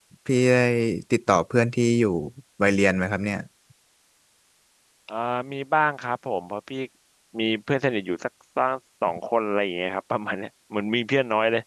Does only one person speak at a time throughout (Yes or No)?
Yes